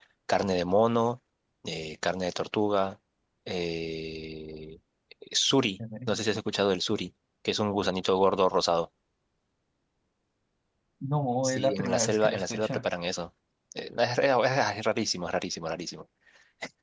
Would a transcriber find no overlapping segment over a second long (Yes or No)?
No